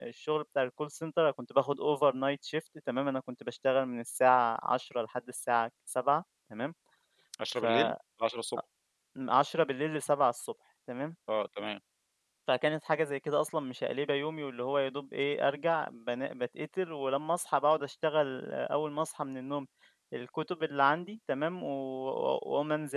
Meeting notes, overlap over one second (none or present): none